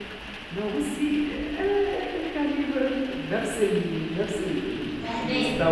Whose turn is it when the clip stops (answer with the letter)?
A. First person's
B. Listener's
B